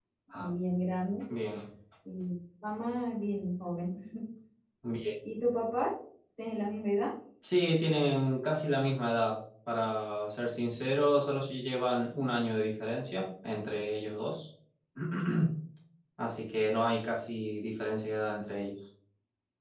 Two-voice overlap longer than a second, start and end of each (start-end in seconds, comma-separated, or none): none